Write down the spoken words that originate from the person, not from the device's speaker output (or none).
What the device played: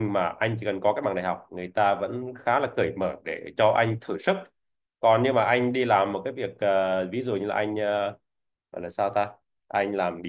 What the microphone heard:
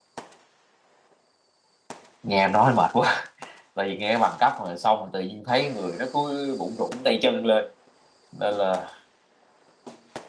nghe nói mệt quá tại vì nghe bằng cấp rồi xong rồi tự nhiên thấy người nó cứ bụng rủn tay chân lên nên là